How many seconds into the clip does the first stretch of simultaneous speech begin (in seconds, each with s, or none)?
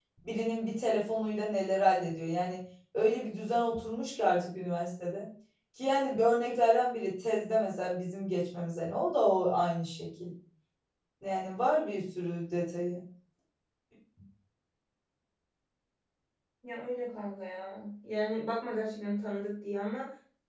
none